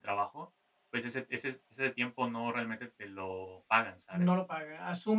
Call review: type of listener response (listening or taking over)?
taking over